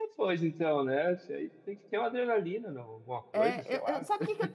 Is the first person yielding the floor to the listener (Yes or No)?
Yes